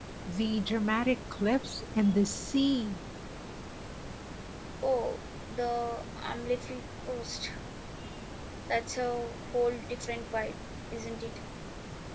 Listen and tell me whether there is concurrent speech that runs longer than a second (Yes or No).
No